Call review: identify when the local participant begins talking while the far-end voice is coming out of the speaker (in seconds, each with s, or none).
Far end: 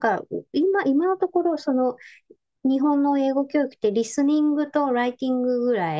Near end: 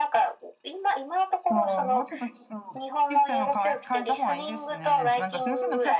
1.4 s